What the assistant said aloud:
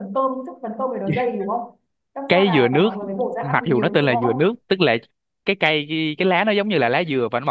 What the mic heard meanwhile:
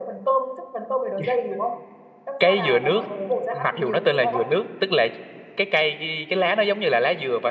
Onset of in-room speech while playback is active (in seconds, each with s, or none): none